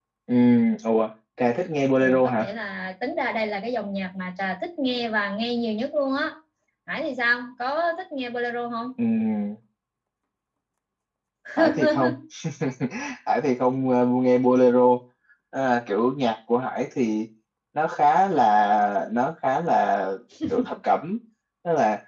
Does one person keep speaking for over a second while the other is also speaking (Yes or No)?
No